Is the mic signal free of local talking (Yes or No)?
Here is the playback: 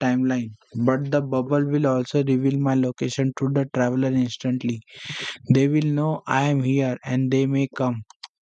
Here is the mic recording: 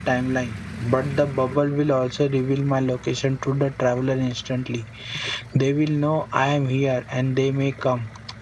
Yes